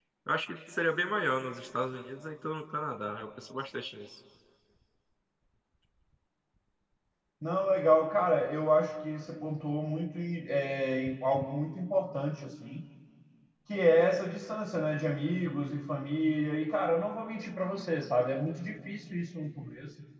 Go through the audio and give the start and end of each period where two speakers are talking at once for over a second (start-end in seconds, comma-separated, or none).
none